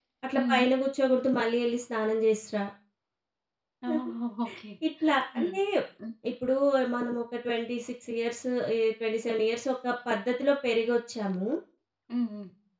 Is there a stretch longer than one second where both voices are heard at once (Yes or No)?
No